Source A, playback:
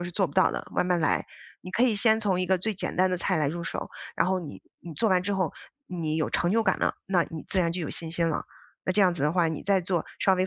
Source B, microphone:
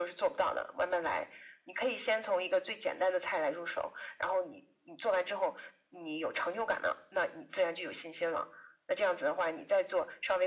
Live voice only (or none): none